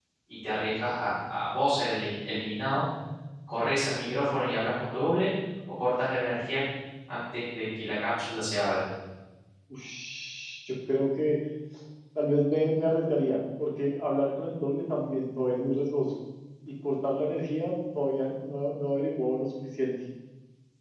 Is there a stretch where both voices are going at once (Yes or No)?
No